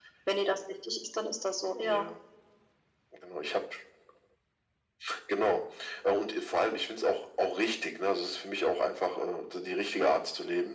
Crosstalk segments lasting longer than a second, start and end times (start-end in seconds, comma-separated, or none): none